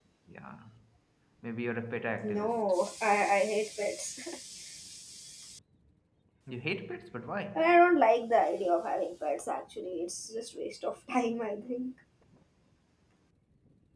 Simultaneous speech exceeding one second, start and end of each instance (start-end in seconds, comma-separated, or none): none